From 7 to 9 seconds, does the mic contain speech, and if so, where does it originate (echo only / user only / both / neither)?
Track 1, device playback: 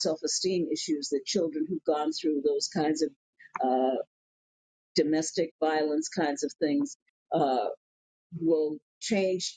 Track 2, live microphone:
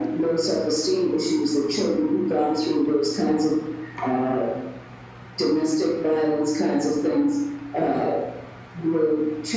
echo only